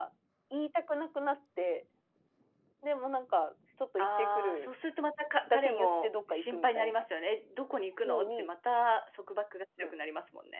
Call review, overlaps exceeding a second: present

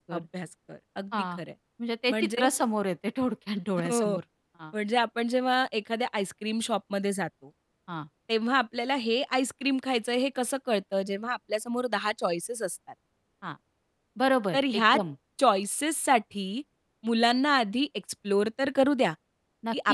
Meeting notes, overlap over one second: none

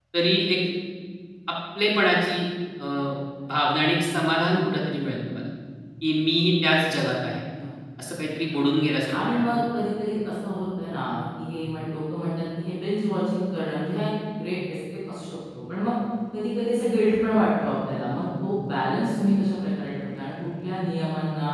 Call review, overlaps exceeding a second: none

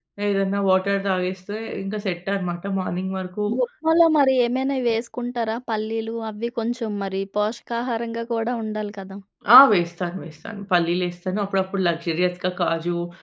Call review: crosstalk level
none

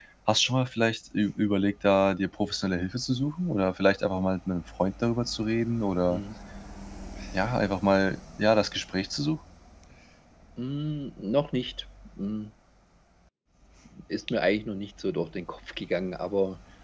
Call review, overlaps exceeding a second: none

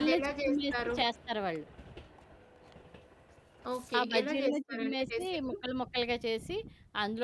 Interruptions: present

